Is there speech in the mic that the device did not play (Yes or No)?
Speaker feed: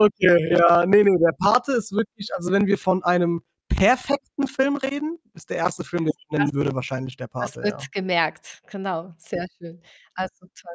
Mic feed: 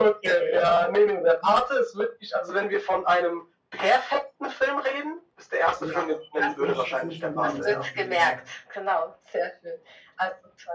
Yes